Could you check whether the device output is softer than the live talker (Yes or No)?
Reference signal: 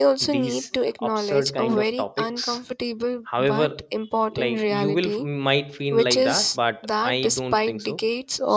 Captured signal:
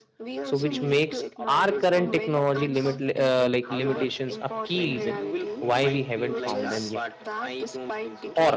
Yes